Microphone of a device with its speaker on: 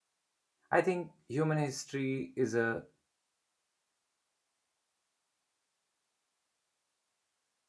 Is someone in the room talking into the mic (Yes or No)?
Yes